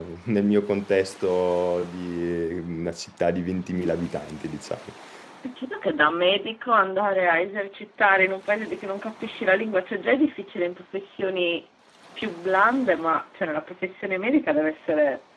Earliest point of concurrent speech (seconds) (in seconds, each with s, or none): none